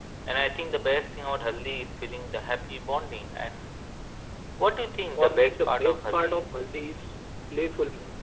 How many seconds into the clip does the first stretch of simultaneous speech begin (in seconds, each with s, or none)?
5.2 s